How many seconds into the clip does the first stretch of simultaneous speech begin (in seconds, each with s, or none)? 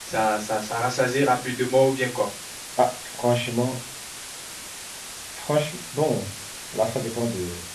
none